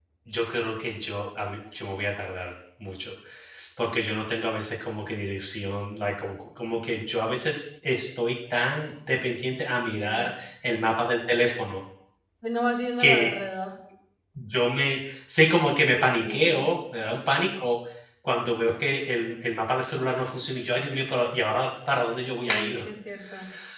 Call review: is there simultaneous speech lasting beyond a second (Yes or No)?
No